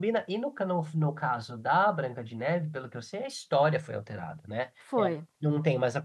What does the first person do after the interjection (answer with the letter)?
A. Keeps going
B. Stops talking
A